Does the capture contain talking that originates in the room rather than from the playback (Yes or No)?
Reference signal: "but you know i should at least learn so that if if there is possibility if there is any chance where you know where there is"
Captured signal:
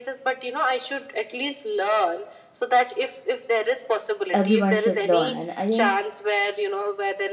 Yes